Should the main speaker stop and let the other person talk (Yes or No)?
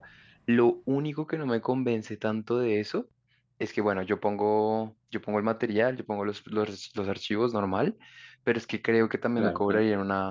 No